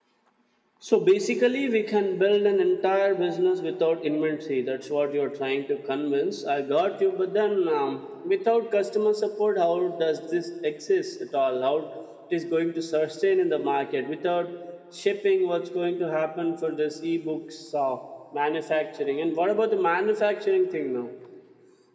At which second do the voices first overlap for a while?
none

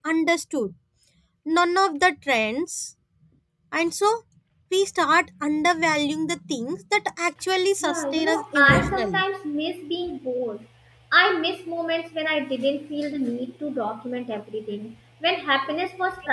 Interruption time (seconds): 7.8 s

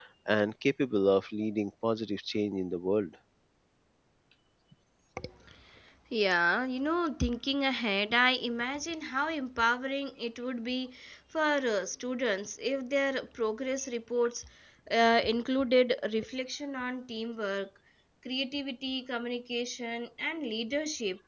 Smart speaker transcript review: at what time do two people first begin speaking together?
none

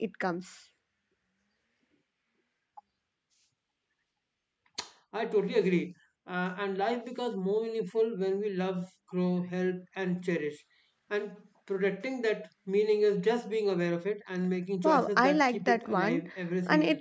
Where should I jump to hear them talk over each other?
14.8 s

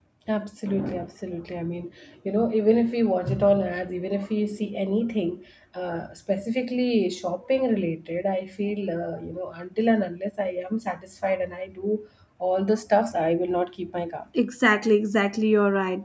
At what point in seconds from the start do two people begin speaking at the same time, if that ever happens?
none

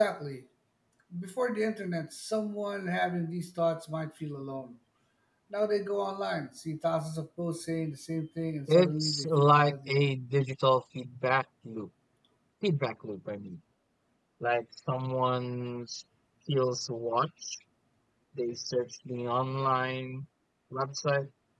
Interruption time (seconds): 8.7 s

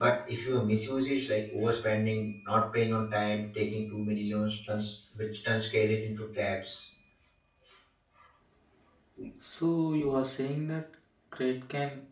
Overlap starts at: none

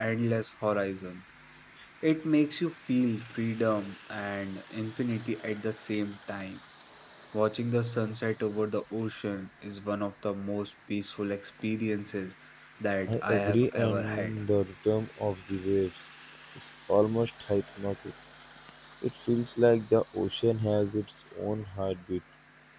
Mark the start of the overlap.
13.1 s

